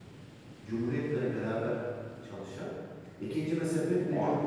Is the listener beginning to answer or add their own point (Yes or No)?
No